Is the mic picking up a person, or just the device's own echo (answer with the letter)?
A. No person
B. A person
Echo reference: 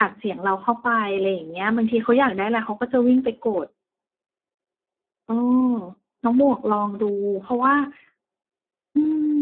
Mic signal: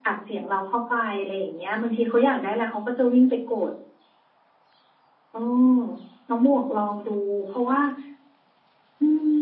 A